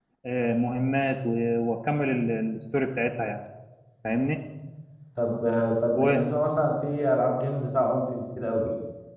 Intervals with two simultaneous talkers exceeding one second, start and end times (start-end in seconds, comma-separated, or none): none